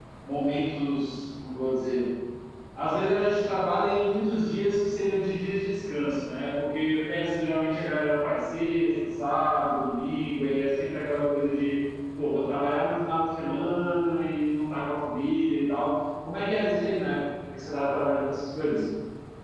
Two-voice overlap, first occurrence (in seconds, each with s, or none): none